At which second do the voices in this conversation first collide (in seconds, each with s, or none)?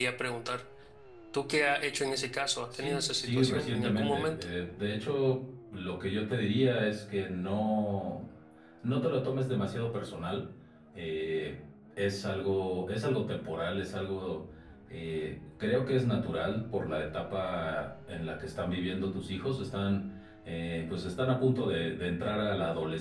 2.7 s